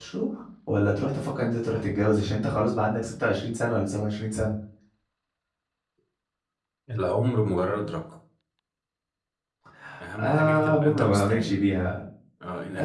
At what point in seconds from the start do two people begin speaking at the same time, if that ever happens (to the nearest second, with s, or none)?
10 s